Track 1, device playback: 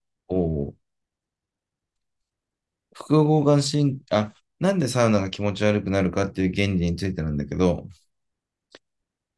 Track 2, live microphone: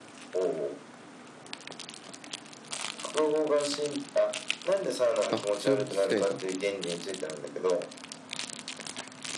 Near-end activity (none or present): present